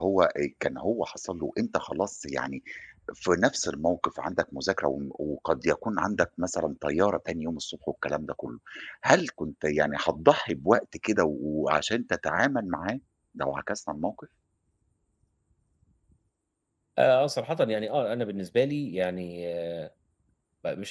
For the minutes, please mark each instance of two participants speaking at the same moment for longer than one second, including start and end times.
none

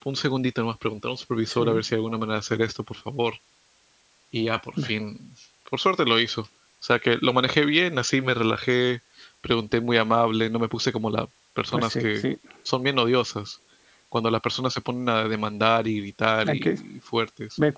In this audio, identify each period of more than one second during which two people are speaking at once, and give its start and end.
none

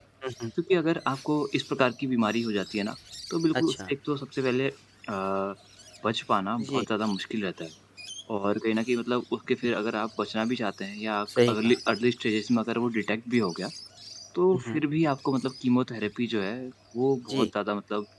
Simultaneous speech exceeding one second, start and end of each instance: none

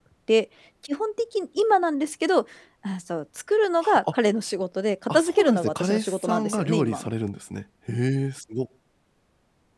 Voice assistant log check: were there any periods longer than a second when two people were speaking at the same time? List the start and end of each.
5.1-7.1

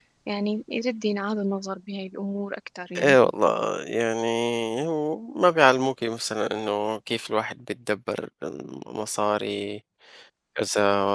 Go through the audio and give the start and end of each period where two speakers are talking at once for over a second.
none

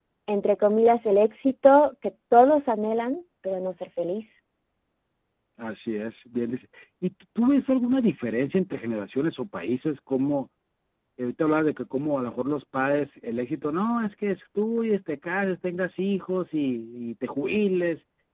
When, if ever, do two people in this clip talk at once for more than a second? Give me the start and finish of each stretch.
none

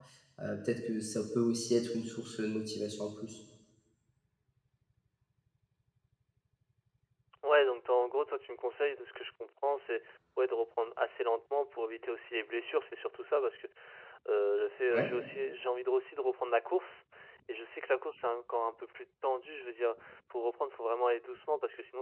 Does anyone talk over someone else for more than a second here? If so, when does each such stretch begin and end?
none

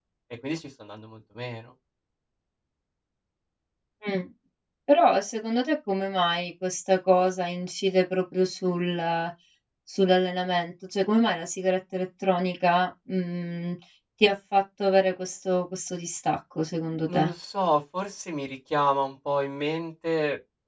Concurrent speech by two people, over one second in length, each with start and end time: none

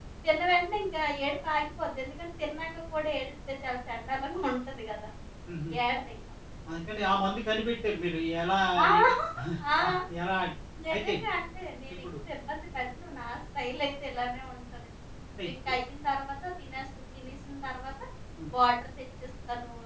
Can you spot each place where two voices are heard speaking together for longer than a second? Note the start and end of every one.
none

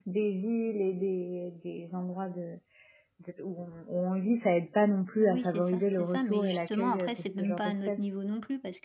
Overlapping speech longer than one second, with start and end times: 5.2-8.1

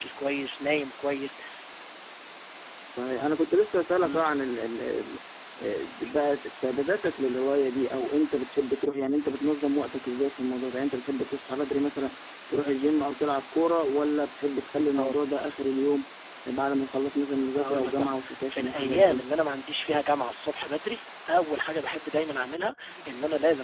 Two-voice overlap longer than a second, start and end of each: 17.6-19.2

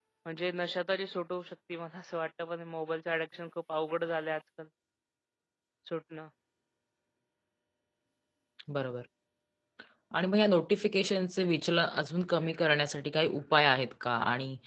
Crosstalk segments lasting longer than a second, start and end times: none

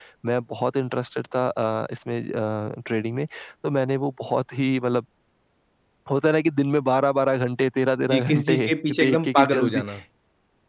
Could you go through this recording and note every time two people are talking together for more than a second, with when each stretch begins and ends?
8.1-9.8

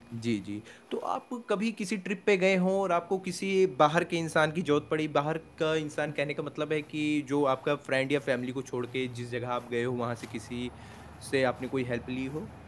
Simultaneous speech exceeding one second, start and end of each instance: none

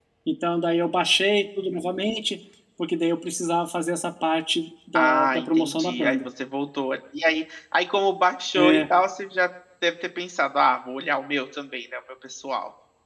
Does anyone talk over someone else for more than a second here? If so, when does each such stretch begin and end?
5.0-6.2

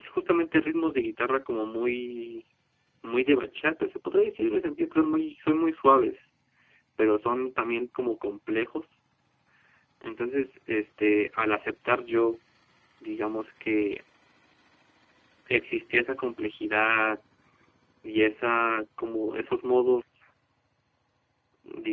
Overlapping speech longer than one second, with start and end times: none

